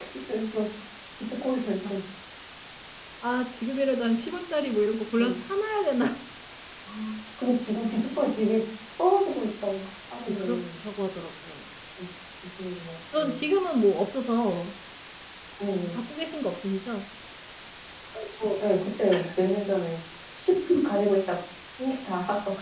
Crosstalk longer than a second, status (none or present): none